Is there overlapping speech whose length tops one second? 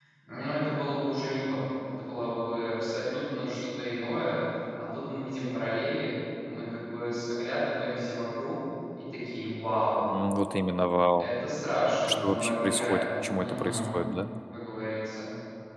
Yes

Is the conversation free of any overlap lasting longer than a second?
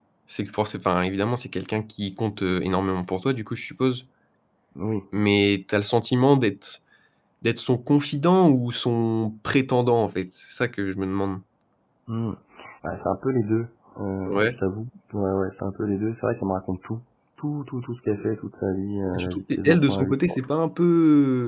No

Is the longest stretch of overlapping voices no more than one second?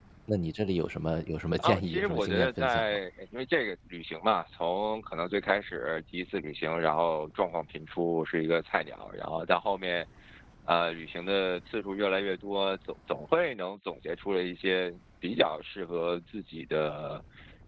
No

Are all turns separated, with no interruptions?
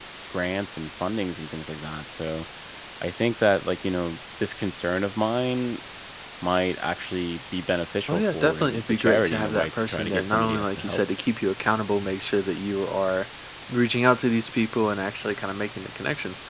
No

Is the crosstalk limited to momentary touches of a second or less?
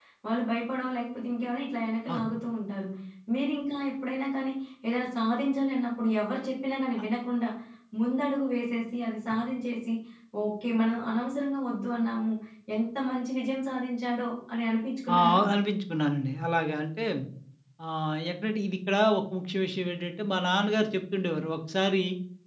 Yes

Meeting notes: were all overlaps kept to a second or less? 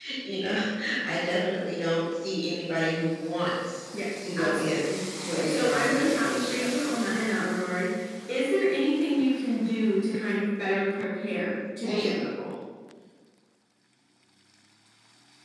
No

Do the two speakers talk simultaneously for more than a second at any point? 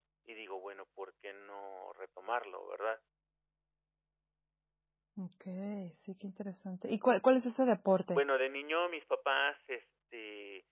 No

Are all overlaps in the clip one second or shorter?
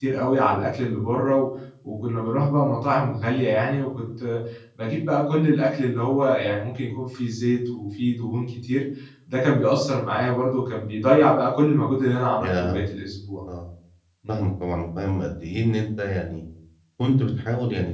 Yes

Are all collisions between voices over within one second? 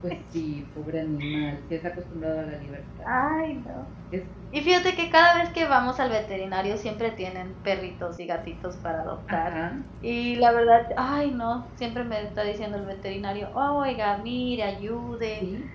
Yes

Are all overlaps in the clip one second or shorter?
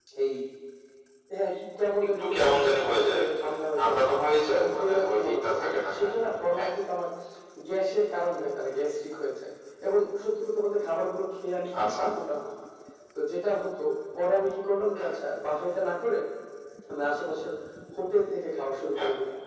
No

